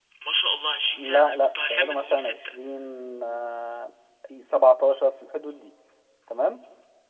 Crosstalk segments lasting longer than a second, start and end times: 1.0-2.5

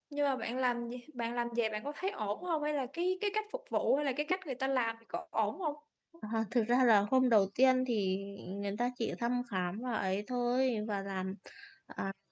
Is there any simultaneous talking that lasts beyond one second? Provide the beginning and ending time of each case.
none

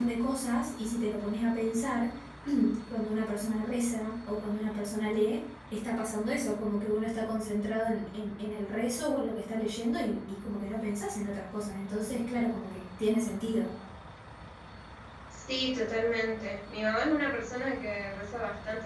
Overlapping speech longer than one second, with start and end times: none

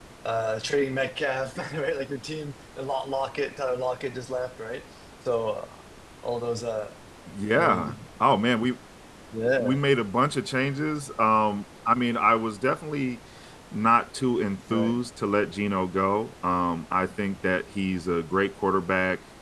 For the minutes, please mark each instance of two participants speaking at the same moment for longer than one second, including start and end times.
none

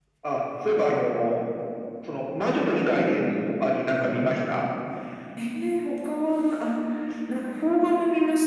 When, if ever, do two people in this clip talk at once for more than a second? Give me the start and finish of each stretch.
none

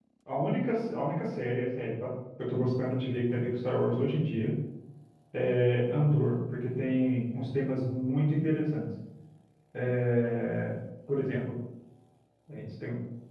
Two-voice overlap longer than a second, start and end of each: none

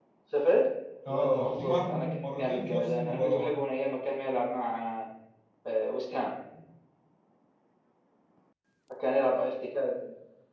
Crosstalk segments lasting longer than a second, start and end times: 1.1-3.5

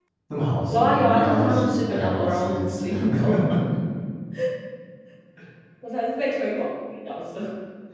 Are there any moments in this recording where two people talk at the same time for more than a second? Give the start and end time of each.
0.7-3.3

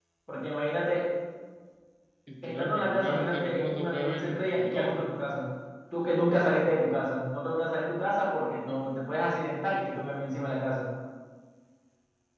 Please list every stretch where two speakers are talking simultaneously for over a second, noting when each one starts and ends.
2.4-5.0

